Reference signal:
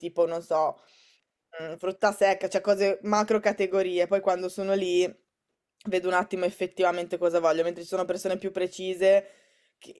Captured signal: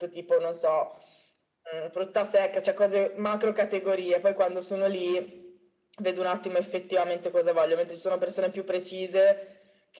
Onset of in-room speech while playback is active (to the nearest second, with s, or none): none